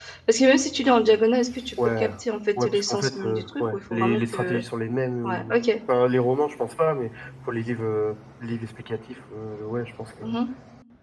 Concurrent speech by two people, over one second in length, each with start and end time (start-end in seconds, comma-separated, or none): 2.6-4.6